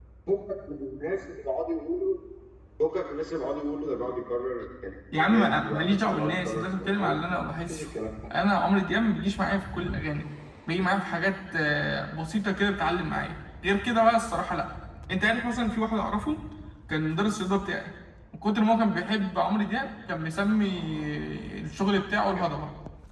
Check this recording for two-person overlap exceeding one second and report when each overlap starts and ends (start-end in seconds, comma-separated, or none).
5.2-7.2